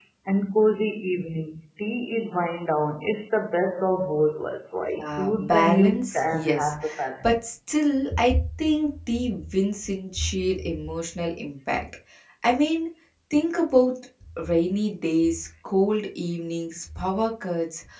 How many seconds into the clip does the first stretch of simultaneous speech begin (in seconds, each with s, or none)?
5.0 s